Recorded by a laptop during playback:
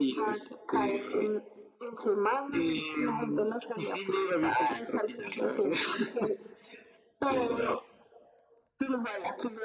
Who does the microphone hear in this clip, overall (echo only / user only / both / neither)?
echo only